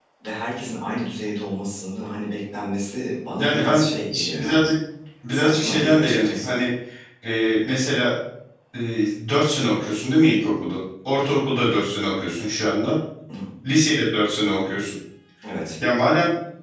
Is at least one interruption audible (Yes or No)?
Yes